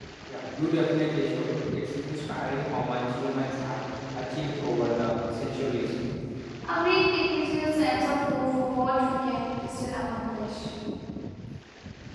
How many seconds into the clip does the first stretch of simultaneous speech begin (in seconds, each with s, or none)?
none